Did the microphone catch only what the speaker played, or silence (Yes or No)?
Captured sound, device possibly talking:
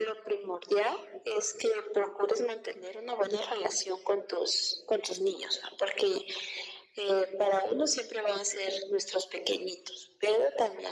Yes